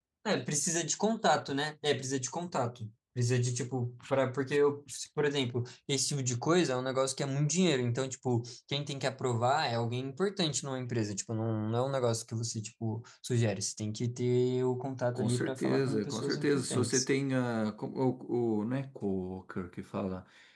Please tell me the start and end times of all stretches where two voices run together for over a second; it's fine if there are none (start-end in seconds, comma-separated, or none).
15.2-17.1